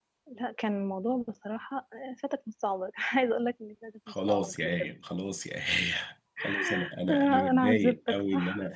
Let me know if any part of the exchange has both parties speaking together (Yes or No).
Yes